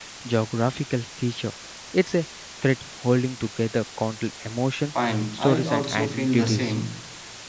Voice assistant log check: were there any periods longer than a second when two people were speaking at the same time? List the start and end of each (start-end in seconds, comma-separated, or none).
5.3-6.8